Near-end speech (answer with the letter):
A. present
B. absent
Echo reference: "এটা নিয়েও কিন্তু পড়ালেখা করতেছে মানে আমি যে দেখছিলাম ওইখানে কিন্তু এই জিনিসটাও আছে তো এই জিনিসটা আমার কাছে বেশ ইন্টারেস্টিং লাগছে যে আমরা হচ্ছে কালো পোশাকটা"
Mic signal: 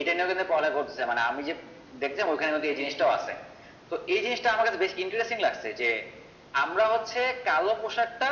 B